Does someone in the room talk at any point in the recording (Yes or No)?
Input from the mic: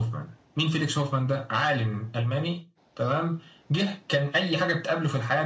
No